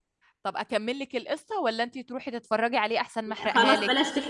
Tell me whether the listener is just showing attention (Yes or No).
No